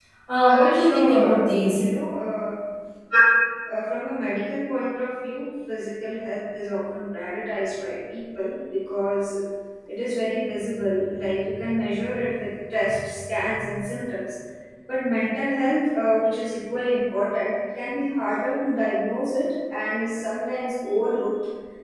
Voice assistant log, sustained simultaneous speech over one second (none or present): present